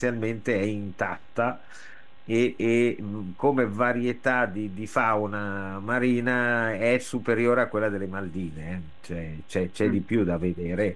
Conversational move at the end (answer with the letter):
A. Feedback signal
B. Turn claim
A